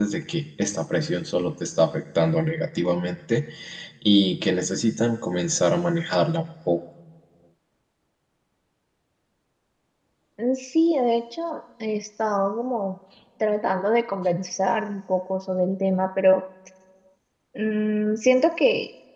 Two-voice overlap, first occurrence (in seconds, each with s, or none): none